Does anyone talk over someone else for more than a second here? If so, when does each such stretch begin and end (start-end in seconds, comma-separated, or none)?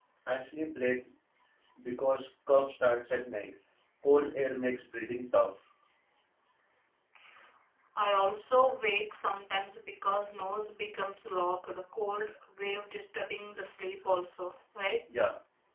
none